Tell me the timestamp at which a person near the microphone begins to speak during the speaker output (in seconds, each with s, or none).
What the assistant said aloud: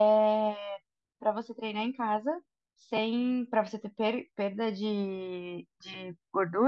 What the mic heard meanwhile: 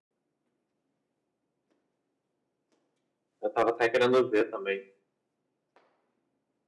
3.4 s